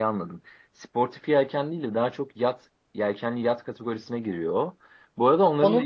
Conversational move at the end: listening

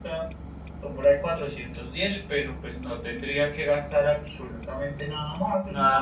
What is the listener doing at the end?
taking over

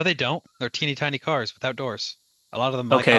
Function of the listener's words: taking over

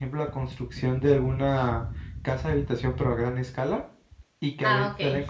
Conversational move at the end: listening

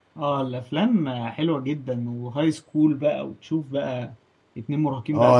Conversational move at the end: taking over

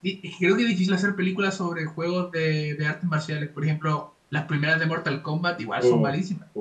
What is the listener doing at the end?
taking over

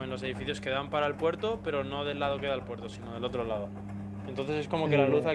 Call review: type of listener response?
listening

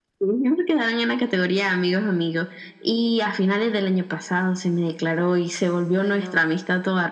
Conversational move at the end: listening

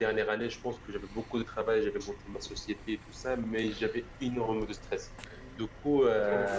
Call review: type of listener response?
listening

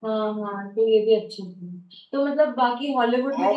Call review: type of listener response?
listening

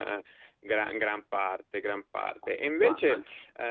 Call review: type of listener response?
listening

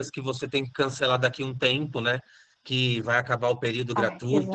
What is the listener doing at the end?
listening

